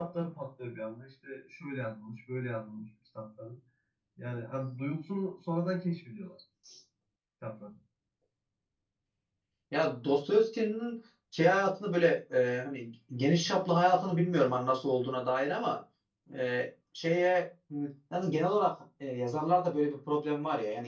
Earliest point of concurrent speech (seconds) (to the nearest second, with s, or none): none